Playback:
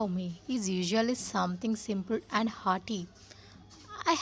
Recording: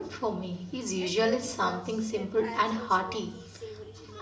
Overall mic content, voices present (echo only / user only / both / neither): both